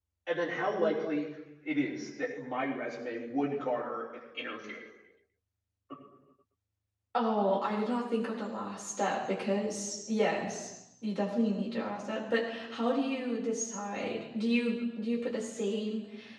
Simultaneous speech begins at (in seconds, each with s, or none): none